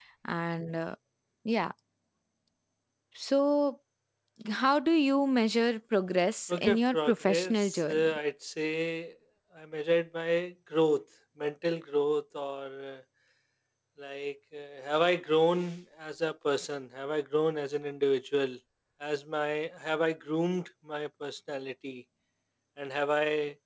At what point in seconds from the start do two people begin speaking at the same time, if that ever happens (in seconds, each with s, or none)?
6.5 s